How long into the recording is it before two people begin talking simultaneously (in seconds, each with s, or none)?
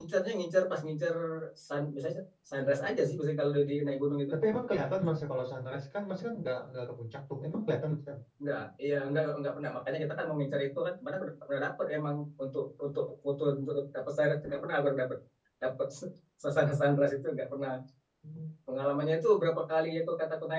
none